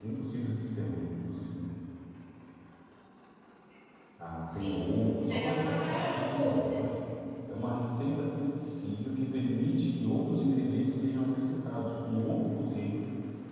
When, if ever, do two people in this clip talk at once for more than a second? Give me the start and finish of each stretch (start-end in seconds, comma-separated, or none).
4.6-6.8